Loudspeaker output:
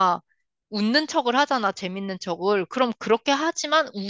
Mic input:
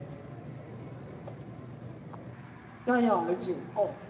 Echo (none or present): none